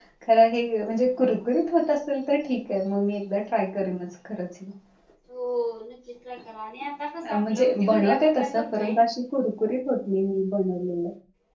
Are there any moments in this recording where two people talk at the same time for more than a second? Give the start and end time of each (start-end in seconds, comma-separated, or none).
7.5-8.9